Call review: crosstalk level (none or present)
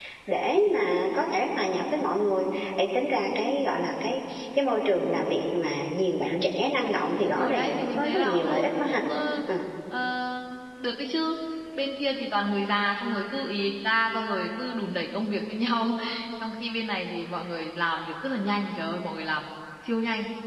present